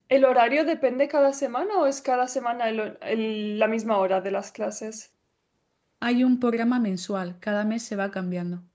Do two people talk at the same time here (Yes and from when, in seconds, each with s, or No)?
No